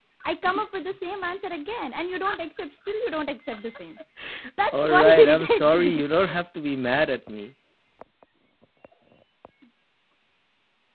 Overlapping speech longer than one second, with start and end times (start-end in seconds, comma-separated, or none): 4.7-5.9